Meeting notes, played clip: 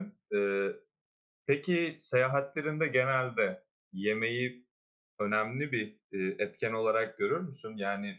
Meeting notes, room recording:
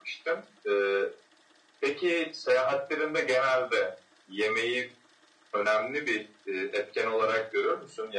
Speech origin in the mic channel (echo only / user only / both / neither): echo only